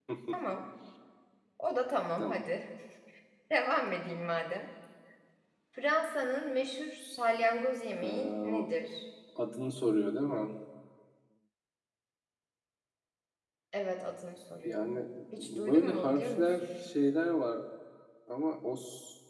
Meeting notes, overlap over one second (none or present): present